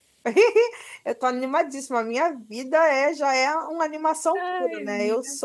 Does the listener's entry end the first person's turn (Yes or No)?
No